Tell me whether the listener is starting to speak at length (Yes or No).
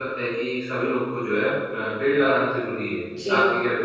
Yes